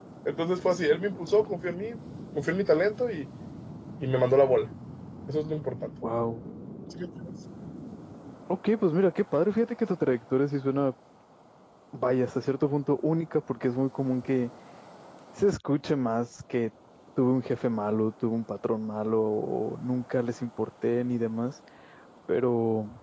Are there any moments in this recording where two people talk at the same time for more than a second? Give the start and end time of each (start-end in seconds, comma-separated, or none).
none